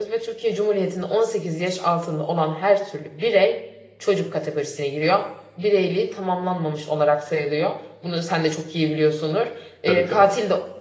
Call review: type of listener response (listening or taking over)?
listening